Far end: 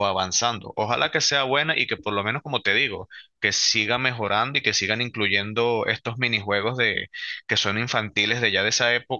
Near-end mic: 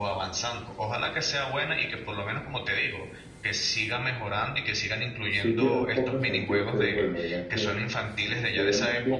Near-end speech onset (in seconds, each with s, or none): 5.3 s